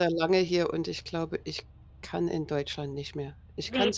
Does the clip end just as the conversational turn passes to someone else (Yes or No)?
Yes